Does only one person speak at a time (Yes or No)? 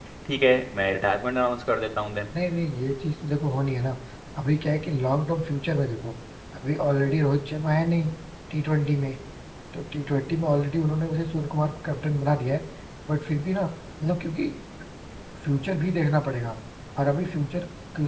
Yes